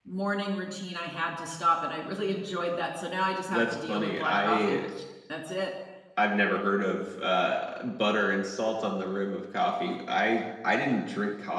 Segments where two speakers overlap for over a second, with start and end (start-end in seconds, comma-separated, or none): 3.5-4.8